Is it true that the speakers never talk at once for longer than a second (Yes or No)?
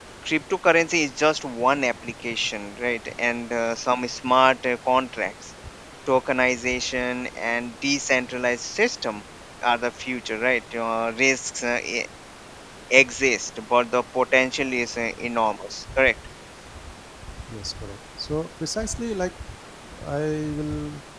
Yes